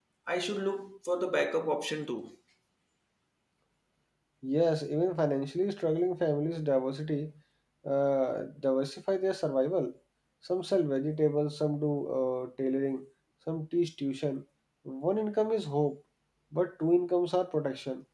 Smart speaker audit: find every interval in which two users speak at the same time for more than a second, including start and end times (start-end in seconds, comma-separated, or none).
none